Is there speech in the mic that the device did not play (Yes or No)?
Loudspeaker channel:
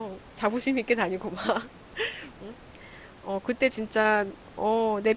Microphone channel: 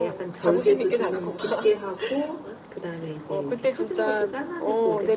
Yes